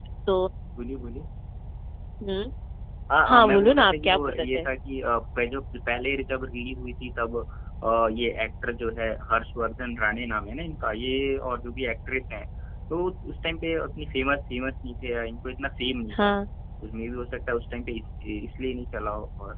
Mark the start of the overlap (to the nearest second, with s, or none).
3 s